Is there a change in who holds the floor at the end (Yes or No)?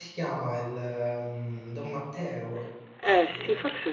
Yes